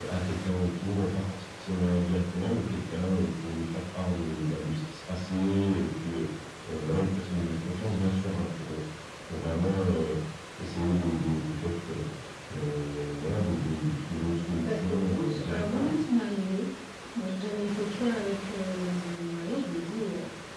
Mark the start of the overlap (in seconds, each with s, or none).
14.6 s